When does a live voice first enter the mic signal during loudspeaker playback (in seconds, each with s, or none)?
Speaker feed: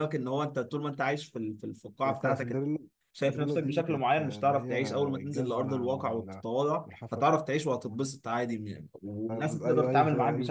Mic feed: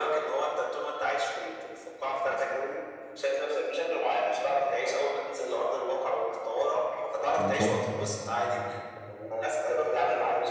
7.4 s